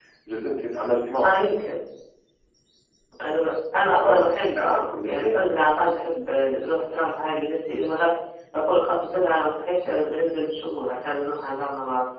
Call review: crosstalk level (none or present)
present